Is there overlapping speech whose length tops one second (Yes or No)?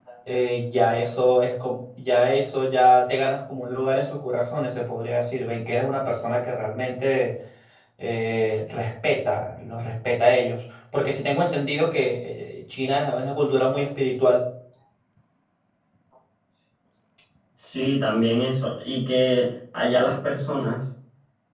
No